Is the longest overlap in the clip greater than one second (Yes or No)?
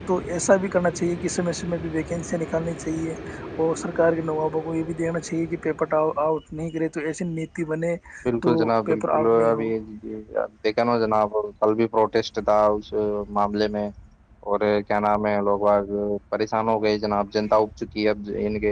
Yes